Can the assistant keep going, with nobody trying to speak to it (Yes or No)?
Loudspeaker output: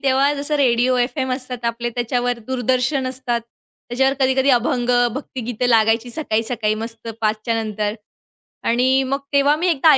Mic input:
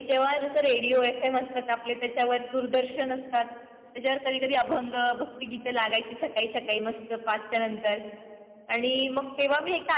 Yes